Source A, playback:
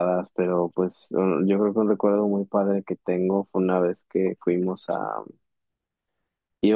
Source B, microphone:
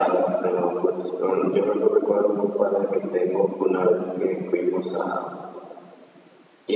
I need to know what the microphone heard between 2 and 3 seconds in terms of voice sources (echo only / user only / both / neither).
echo only